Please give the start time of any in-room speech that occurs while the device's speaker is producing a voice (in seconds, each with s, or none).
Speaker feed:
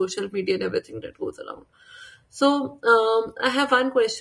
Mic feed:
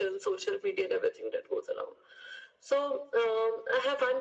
none